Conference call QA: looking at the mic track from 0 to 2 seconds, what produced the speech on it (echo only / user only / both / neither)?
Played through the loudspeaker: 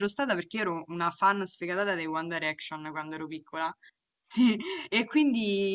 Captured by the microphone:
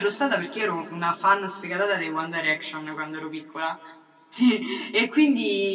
echo only